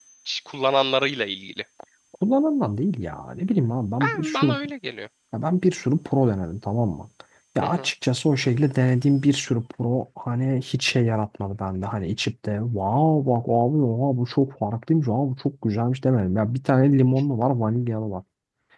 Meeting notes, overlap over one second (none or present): none